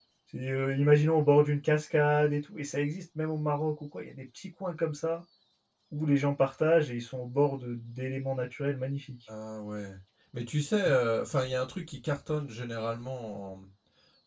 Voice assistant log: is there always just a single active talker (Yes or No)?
Yes